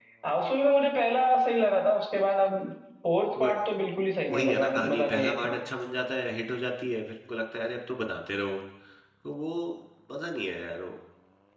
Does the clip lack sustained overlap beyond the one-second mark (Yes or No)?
No